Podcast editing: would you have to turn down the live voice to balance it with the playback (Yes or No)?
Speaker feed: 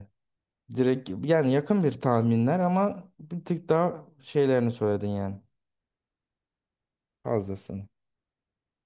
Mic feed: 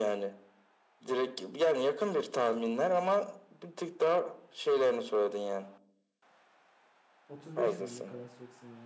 No